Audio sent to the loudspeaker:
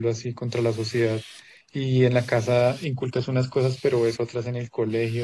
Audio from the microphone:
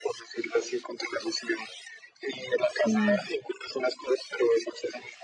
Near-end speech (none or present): present